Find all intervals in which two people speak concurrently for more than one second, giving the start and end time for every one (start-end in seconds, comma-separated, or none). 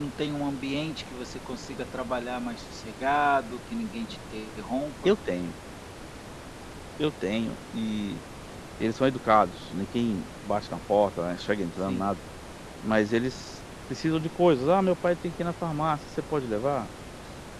none